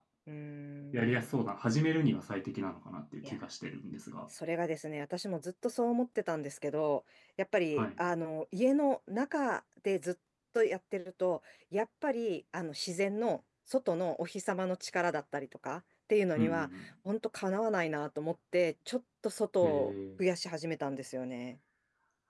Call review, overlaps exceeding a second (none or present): none